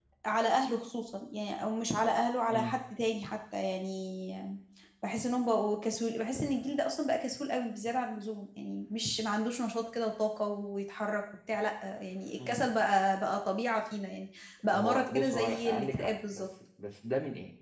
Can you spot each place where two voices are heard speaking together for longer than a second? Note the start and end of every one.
14.7-16.4

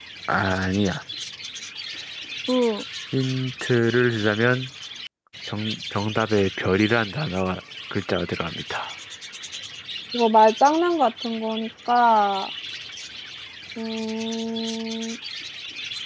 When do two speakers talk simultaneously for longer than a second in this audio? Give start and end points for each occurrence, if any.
none

